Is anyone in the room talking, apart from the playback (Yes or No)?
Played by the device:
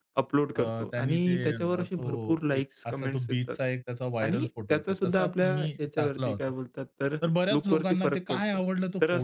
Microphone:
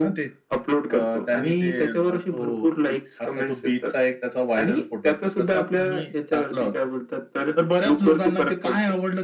No